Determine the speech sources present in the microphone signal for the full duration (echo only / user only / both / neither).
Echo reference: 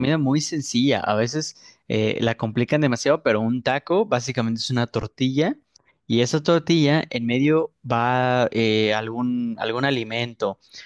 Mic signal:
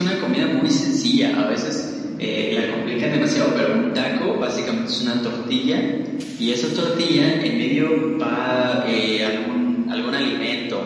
echo only